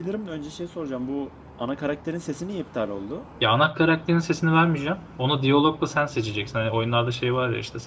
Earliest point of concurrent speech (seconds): none

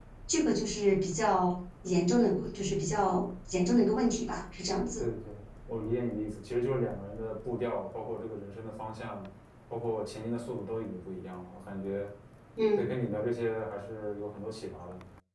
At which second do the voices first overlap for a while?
none

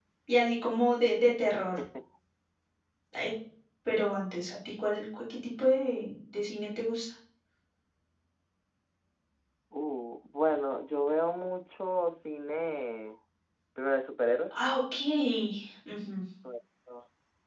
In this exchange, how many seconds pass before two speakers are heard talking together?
none

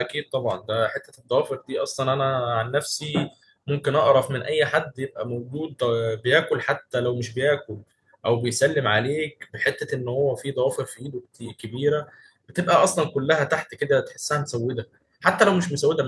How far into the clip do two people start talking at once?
none

